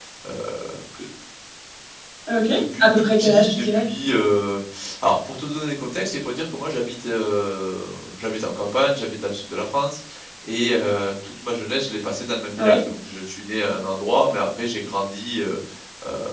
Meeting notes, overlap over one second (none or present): present